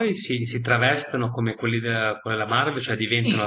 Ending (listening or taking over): taking over